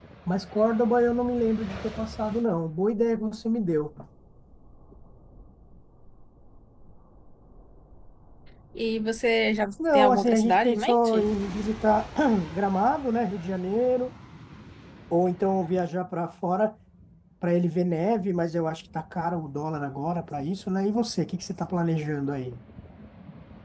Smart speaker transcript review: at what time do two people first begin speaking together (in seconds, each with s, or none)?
9.8 s